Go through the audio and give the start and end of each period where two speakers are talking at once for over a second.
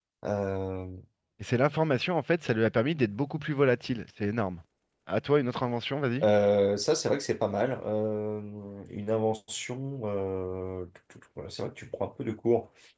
none

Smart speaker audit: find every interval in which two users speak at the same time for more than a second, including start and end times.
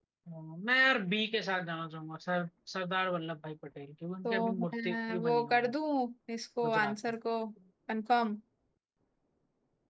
4.2-5.7

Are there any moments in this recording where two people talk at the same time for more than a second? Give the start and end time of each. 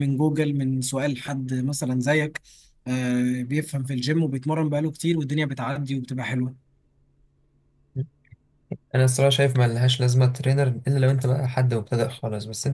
none

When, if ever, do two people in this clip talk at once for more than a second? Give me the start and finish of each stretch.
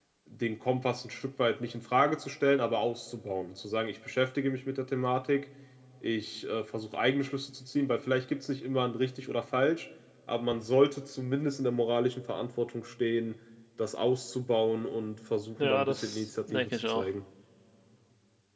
15.6-17.1

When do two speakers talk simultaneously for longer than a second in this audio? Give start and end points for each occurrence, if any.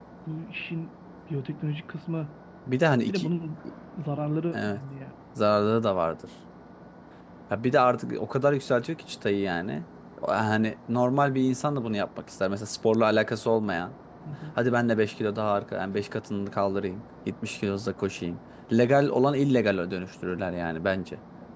none

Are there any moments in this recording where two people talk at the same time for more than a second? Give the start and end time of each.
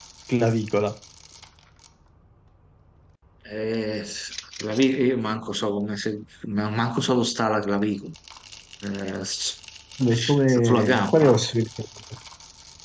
10.1-11.4

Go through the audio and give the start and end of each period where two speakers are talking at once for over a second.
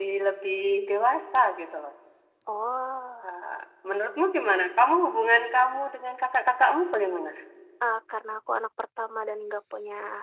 none

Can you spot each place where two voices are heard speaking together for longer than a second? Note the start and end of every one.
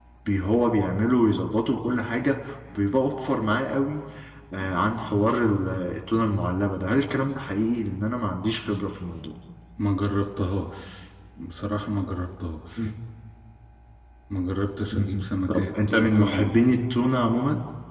14.9-16.4

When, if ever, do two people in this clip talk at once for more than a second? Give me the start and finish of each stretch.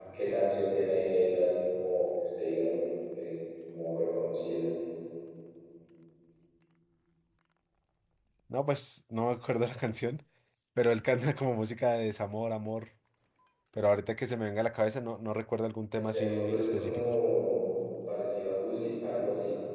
15.9-17.1

